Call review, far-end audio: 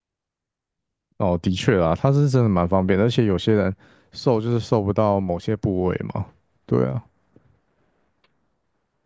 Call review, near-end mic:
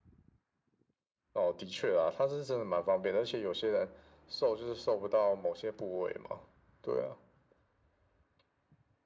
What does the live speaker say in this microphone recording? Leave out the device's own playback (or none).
none